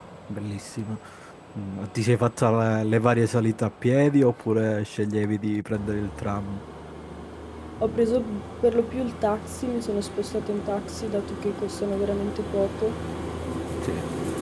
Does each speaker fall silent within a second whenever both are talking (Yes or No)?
Yes